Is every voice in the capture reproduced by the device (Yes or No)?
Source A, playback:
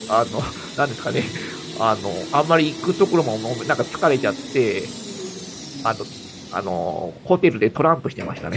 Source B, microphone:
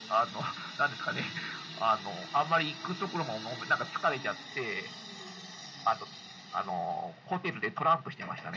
Yes